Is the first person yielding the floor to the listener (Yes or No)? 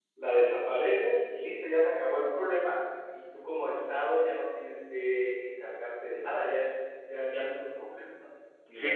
Yes